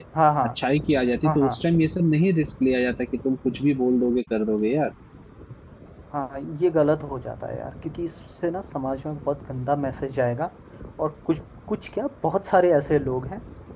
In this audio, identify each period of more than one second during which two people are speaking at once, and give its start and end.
none

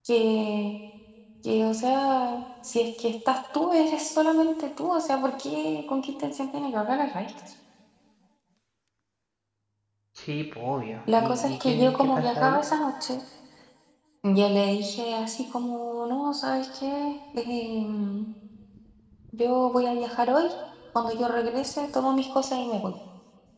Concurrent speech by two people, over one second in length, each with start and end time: 11.2-12.6

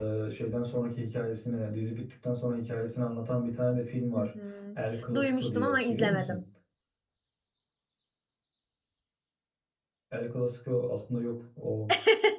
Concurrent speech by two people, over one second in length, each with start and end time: 5.2-6.4

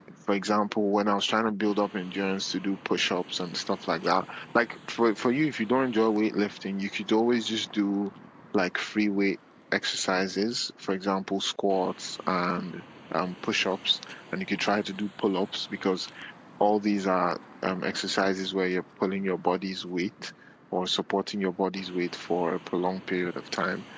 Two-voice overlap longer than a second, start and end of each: none

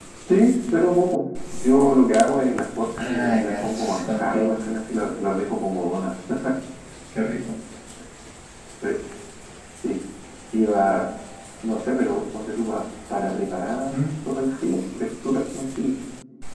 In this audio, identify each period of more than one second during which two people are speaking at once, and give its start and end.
3.0-4.6

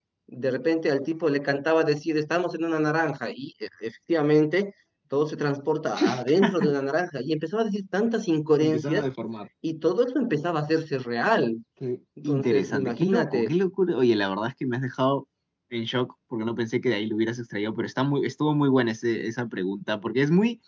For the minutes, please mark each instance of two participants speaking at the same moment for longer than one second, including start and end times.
12.2-13.5

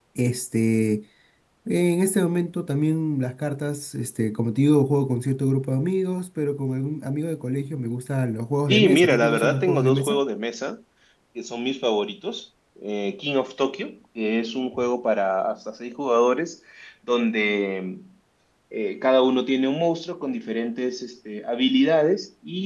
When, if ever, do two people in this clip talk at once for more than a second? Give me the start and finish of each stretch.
8.7-10.2

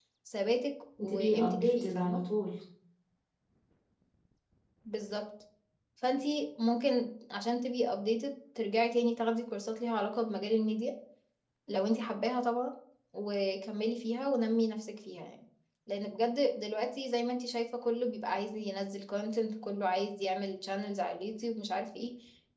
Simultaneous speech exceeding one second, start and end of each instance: 1.0-2.2

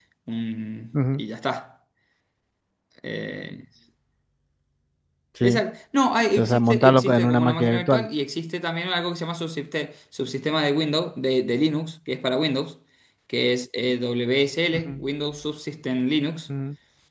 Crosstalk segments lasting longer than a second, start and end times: 6.3-8.1

